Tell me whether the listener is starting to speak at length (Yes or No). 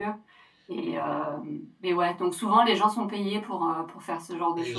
Yes